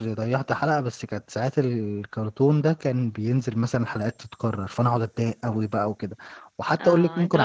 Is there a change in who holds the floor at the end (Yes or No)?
Yes